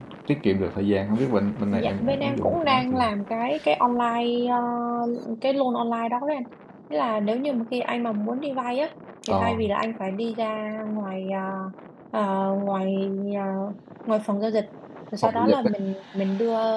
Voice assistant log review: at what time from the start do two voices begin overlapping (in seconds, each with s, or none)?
1.7 s